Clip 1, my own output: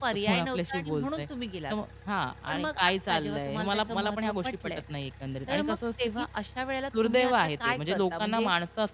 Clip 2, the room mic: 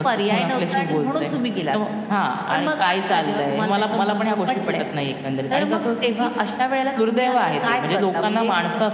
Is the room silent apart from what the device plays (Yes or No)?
Yes